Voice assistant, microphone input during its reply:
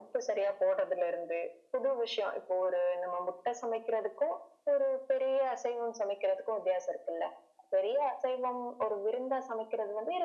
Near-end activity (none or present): none